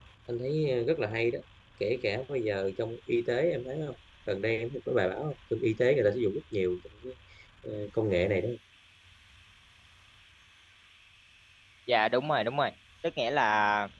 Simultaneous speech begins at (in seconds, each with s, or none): none